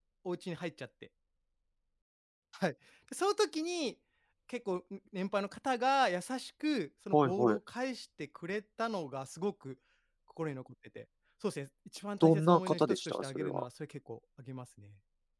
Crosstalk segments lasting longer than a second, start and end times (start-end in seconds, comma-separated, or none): 12.2-13.7